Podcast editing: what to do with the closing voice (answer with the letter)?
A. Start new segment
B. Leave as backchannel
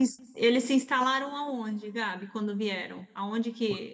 B